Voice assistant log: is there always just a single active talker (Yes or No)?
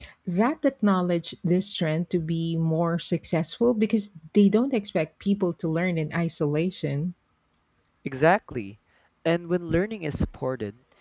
Yes